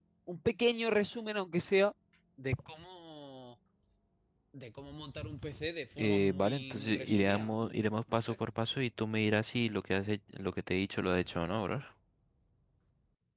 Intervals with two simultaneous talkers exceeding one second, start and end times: 6.0-7.5

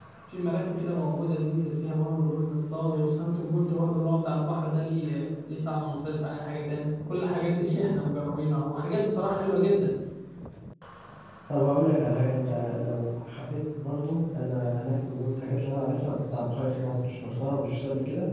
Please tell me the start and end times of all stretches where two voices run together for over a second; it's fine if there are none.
none

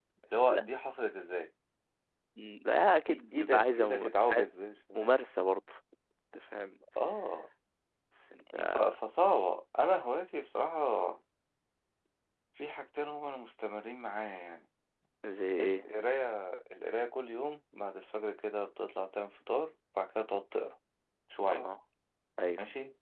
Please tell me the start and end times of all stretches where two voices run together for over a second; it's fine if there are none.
3.1-4.4

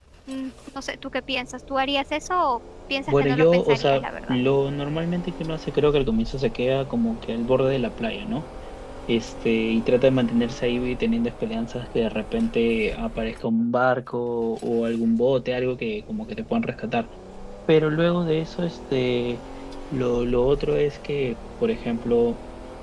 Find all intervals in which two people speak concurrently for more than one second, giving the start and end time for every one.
3.1-4.4

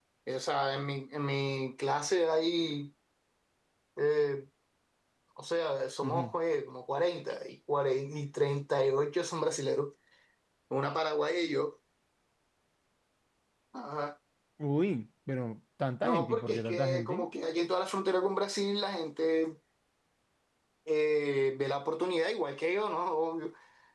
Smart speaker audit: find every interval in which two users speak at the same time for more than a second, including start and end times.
16.0-17.3

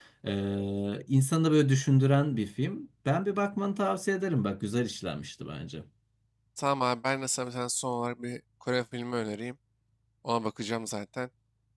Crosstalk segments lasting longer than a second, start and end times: none

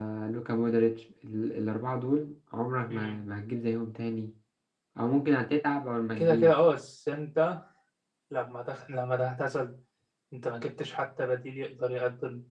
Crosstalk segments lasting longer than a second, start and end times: none

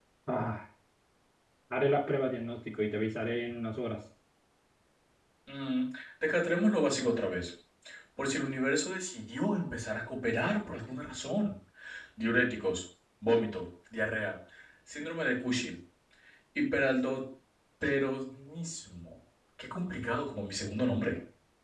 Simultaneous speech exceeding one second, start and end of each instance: none

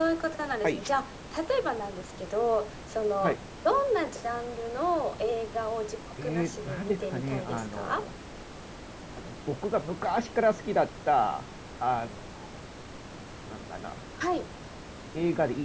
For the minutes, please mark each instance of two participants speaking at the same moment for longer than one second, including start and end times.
6.2-8.0

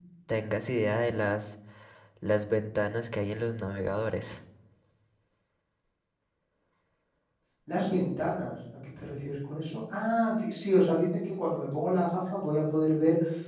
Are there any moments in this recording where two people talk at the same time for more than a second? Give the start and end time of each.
none

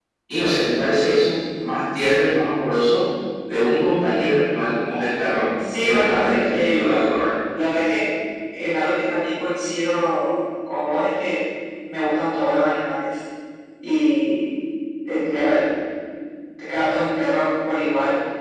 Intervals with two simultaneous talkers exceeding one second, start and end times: 5.8-7.1

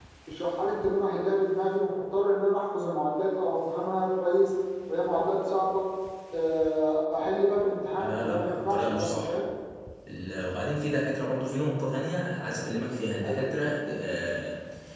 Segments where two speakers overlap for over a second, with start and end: 8.0-9.3

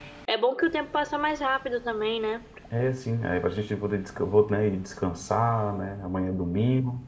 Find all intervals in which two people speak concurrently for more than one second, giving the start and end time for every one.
none

